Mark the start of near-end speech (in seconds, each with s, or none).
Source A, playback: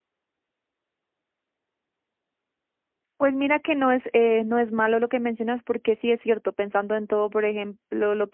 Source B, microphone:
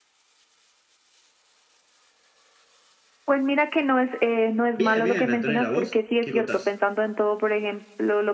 4.8 s